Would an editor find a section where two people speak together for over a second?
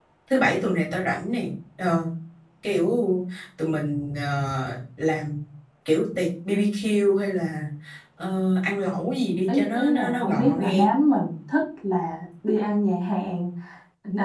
Yes, from 9.5 s

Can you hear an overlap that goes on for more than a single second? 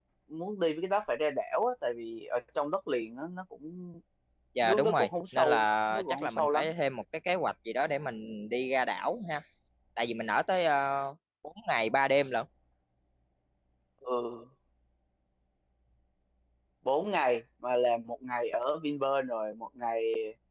Yes, from 4.6 s

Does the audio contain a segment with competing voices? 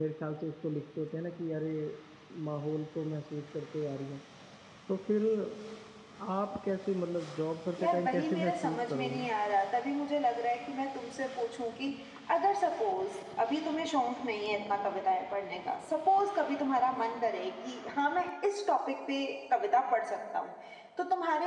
Yes, from 7.8 s

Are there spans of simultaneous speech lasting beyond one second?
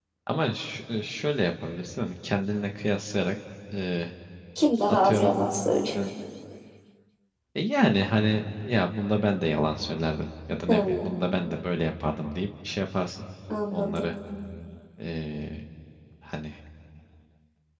No

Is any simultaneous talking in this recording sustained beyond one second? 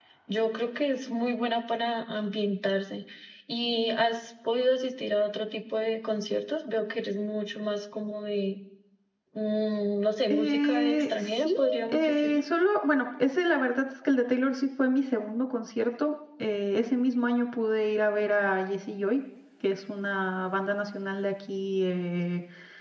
Yes, from 10.3 s

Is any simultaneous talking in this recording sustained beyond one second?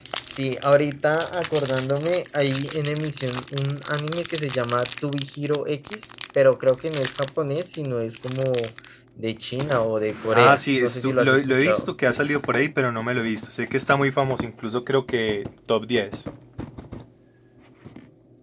Yes, from 10.3 s

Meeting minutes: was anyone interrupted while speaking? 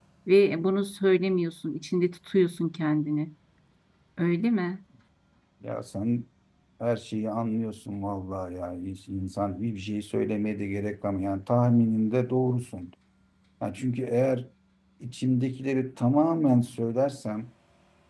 No

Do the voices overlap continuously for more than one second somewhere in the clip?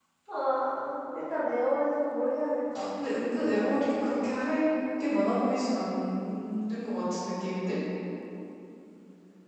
No

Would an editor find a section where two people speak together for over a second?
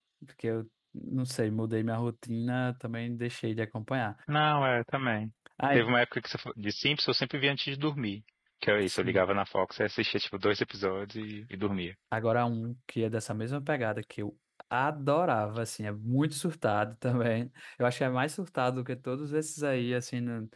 No

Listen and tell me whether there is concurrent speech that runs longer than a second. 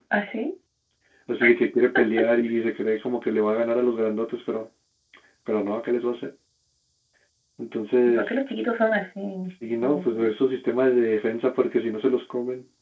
No

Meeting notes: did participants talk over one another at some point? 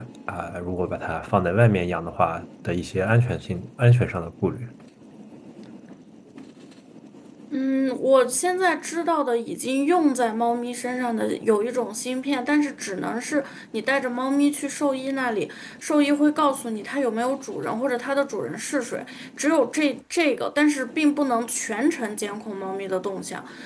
No

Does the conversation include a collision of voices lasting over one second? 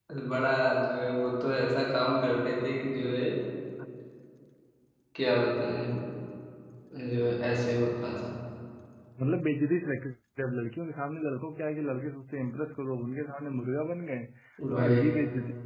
No

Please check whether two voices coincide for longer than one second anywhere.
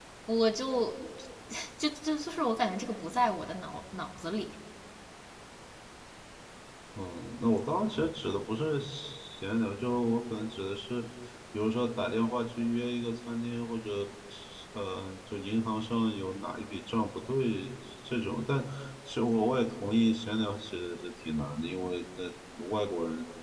No

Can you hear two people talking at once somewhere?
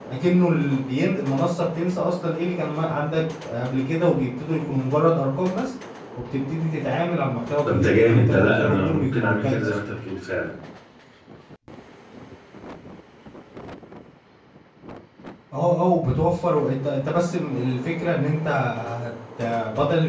Yes, from 7.6 s

